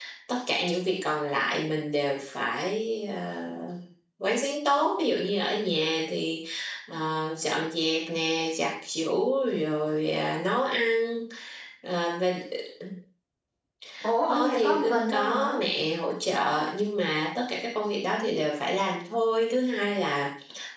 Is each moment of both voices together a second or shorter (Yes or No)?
No